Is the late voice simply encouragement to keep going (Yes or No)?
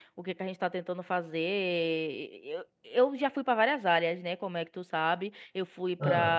Yes